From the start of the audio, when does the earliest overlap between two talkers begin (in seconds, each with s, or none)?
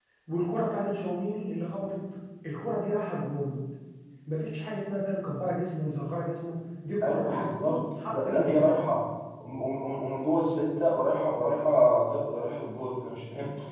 7.0 s